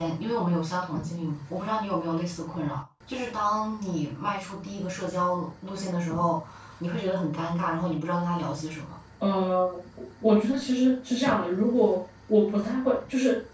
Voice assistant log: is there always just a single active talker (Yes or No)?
Yes